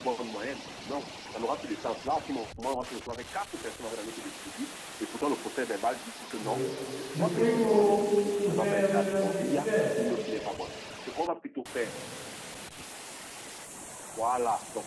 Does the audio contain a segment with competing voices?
Yes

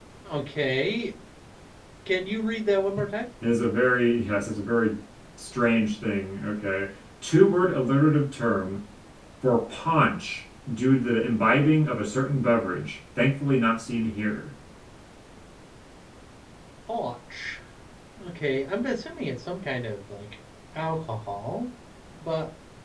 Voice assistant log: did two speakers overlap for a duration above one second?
No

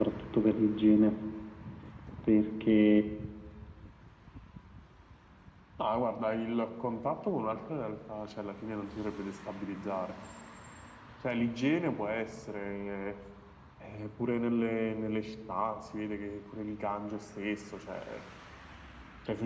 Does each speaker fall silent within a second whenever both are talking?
Yes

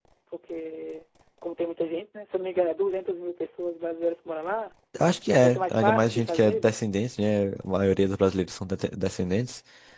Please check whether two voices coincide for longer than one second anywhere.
Yes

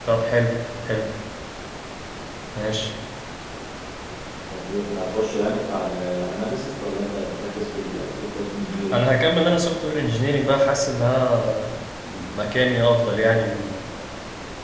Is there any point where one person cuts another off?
No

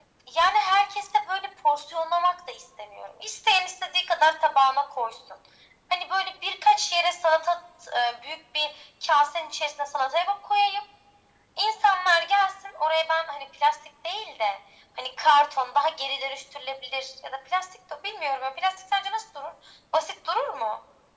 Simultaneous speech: No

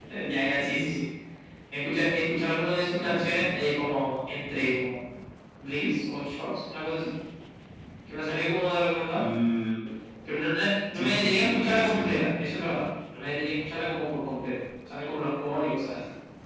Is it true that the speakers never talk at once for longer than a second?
No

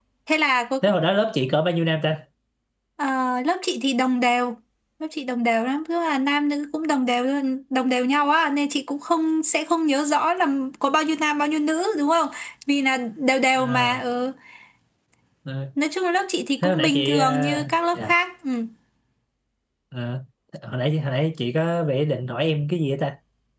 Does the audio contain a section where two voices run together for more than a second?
Yes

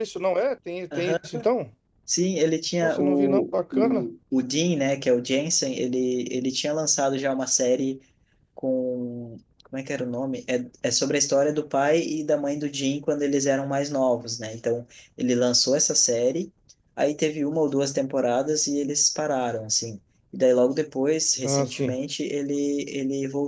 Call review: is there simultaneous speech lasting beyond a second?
Yes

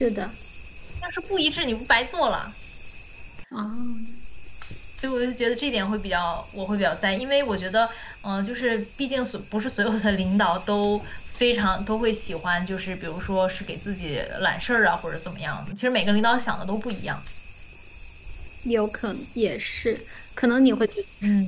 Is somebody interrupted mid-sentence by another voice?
No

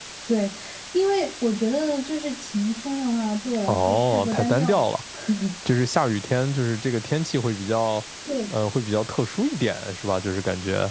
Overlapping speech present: Yes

